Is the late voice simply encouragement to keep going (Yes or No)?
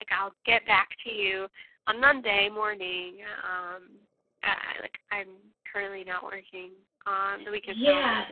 No